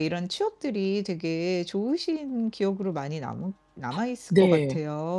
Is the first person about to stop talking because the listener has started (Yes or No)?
Yes